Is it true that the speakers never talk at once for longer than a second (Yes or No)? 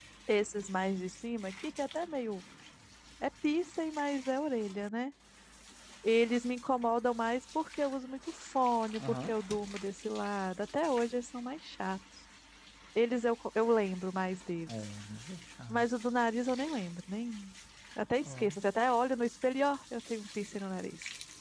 Yes